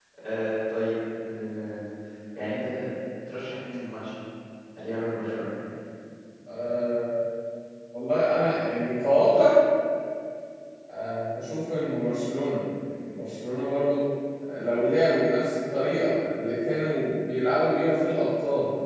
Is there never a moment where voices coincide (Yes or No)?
Yes